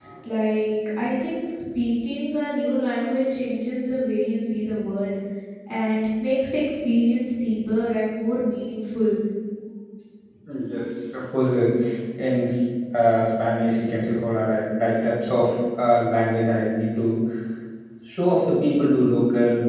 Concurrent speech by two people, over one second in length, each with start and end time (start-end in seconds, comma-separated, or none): none